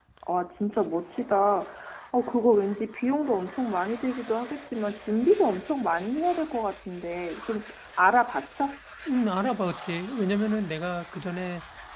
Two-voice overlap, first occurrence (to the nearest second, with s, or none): none